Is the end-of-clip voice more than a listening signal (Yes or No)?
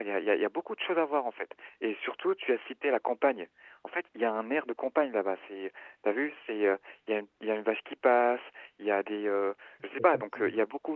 No